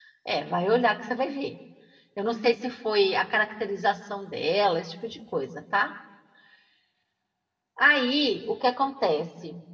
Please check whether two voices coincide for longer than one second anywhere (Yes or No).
No